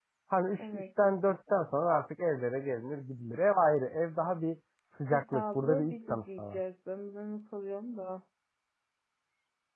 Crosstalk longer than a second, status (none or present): present